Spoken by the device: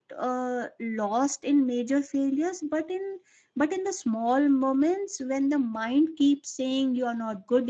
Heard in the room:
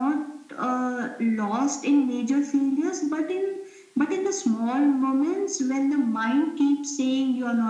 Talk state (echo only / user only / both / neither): echo only